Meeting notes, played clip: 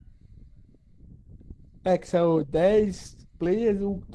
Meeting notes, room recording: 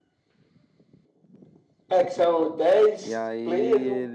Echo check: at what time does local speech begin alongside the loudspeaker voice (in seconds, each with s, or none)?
3.0 s